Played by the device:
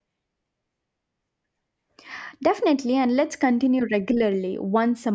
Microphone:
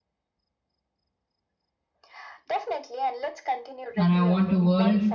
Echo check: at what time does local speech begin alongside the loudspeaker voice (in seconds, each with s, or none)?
4.0 s